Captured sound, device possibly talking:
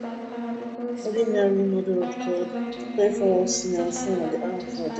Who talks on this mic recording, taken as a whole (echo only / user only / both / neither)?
both